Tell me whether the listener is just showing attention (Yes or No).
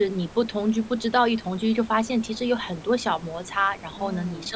Yes